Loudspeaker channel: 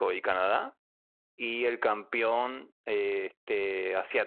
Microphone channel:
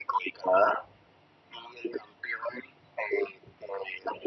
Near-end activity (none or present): none